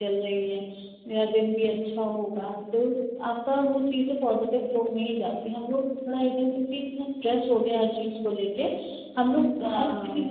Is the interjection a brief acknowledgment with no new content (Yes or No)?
Yes